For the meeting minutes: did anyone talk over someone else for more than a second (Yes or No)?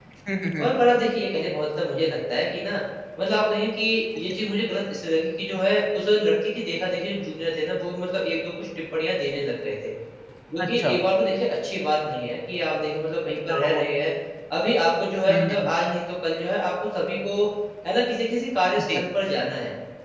No